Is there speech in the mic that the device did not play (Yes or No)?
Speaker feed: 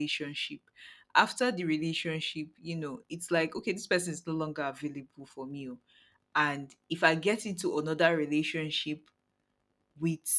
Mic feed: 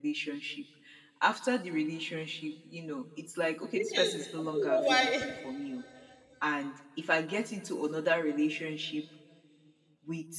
Yes